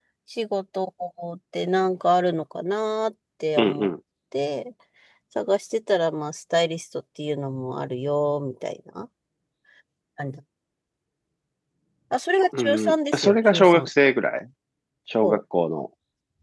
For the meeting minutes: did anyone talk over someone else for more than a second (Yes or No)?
Yes